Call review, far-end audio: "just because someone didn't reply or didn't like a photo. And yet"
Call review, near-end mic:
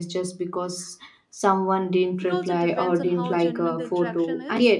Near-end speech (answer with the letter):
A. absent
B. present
B